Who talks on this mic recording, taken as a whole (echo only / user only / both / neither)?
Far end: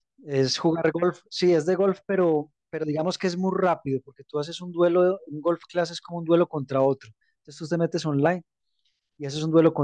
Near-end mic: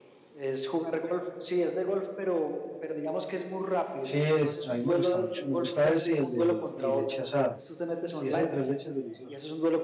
both